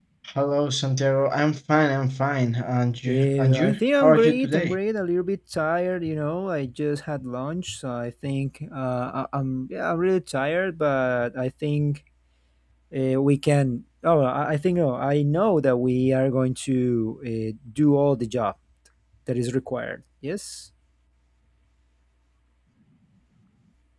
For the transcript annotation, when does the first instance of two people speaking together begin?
3.1 s

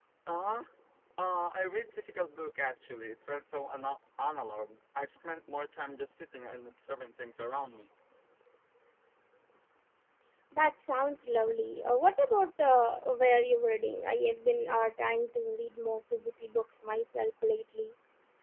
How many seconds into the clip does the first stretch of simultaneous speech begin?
none

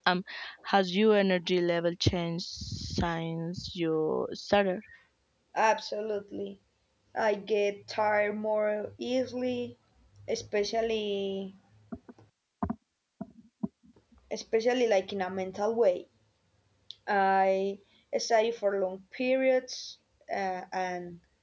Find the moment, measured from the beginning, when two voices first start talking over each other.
none

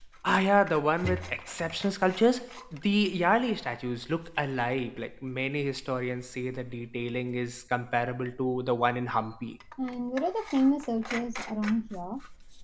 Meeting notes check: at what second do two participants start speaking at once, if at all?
none

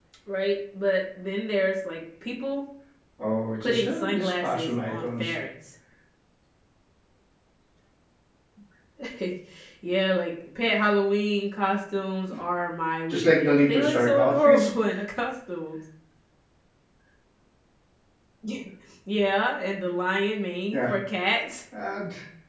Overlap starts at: 3.6 s

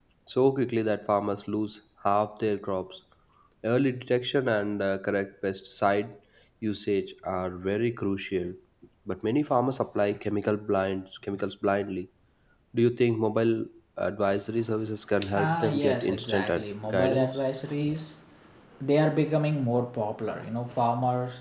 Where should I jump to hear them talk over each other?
15.2 s

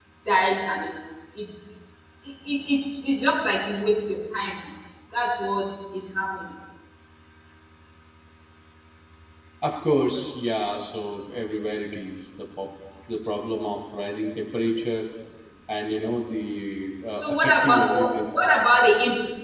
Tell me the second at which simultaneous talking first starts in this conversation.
17.1 s

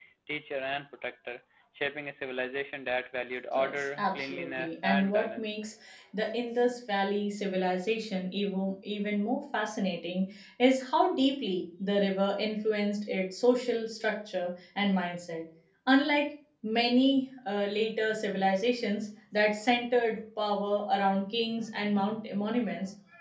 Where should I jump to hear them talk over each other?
3.5 s

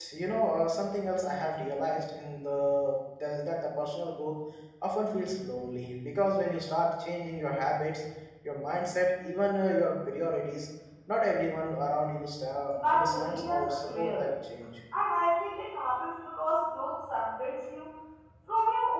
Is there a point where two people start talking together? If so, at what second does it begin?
12.7 s

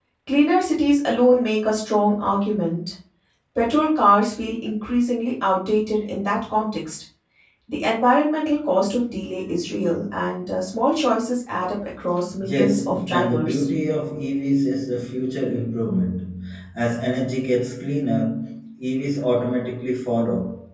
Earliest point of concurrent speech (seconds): 12.4 s

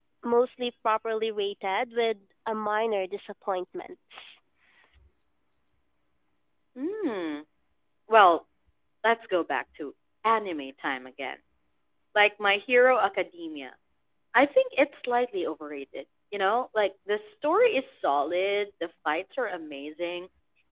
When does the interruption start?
none

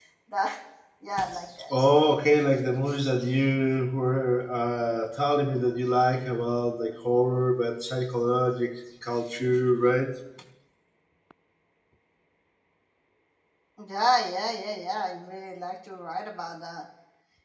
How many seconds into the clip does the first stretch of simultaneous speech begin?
none

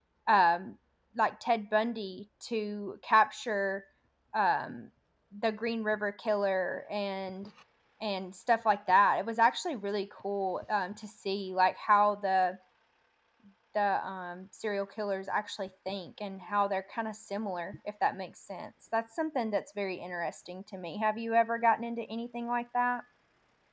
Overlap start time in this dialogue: none

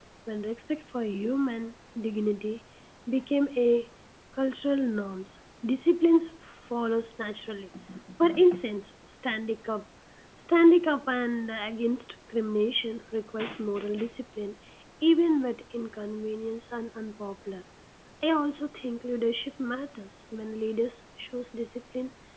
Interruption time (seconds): none

